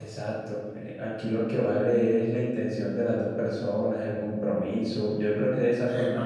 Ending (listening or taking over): listening